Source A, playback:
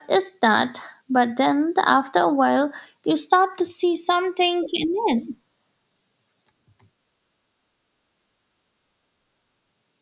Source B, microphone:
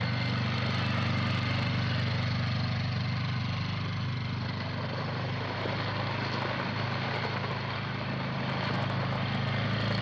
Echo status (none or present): none